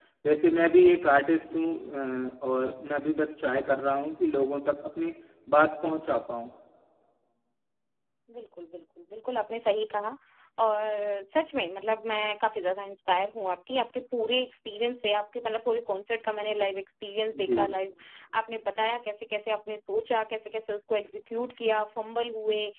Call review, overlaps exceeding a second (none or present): none